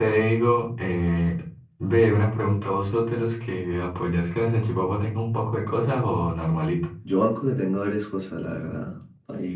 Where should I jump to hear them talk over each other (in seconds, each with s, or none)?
none